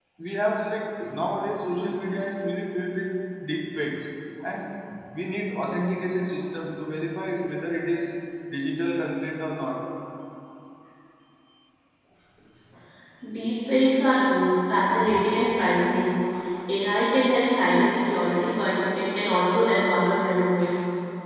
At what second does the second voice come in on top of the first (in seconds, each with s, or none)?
none